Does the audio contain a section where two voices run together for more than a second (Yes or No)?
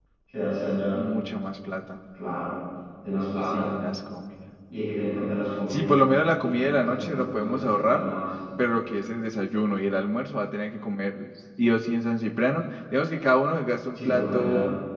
Yes